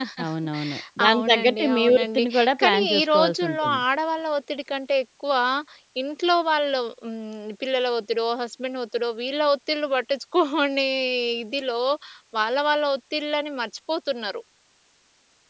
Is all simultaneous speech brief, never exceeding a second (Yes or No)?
No